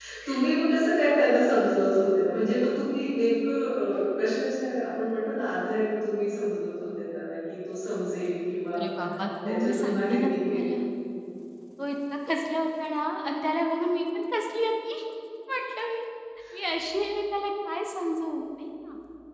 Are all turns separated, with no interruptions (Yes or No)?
No